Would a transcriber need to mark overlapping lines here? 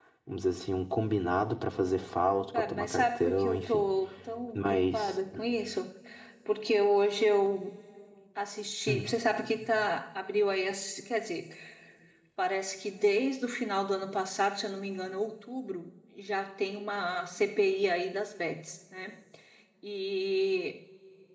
Yes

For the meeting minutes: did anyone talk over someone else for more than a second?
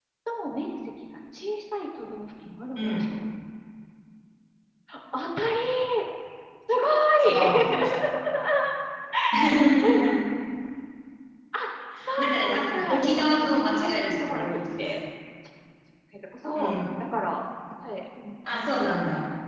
Yes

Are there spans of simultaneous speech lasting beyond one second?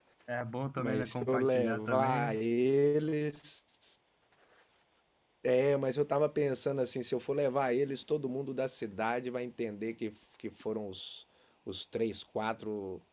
Yes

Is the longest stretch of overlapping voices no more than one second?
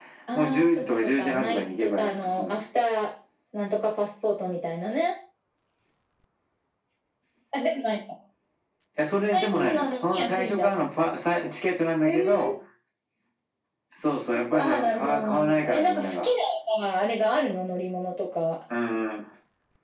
No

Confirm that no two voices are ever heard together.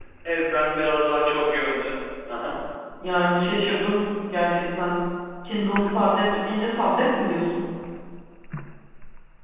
Yes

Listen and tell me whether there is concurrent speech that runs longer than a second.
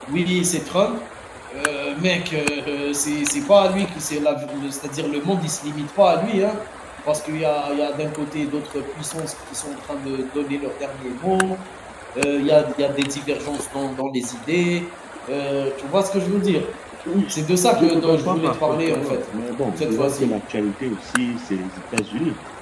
Yes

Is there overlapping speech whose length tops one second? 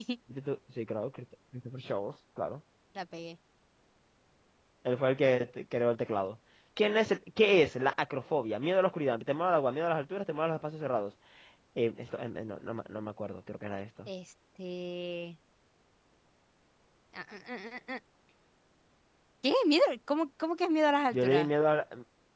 No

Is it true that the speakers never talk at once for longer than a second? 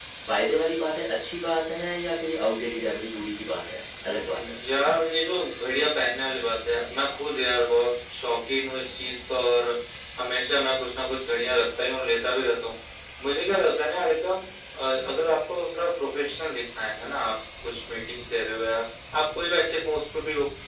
Yes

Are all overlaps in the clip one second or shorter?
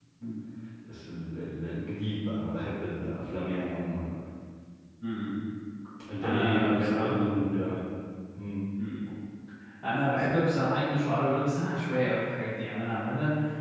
No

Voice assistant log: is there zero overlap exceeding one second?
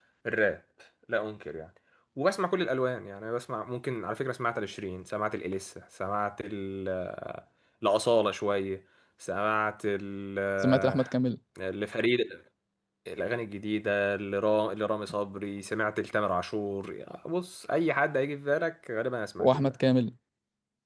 Yes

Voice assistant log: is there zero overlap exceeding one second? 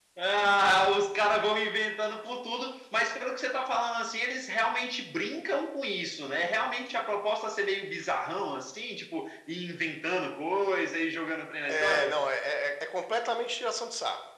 Yes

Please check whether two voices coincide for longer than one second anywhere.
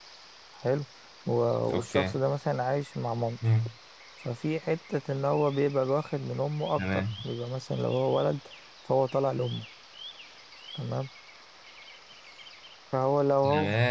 No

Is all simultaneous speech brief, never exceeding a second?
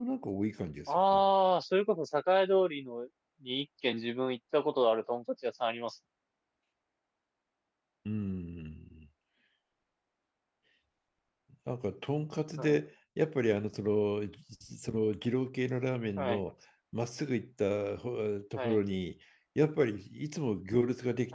Yes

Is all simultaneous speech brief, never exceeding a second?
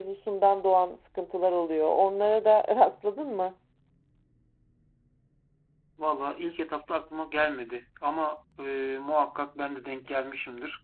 Yes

